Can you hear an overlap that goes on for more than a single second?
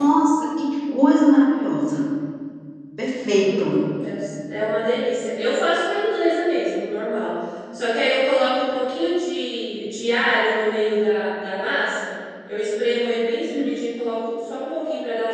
No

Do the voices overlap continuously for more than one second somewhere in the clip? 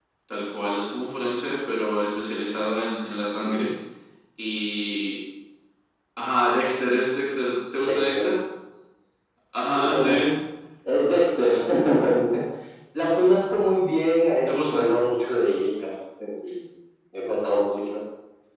No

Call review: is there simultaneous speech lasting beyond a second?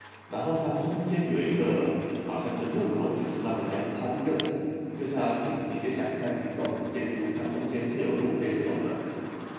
No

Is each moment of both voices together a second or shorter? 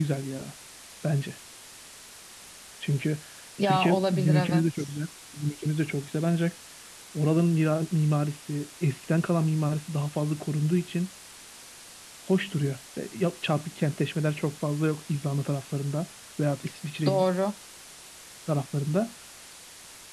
No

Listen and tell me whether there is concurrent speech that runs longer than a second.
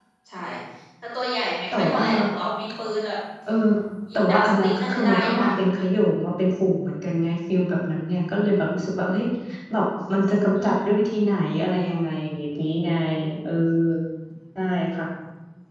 Yes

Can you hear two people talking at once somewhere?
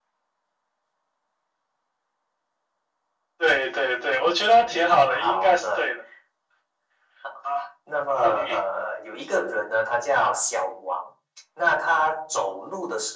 Yes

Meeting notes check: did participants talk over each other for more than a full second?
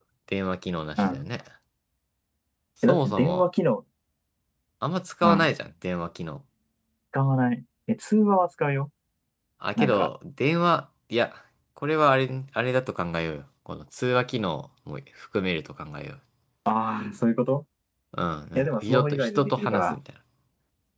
Yes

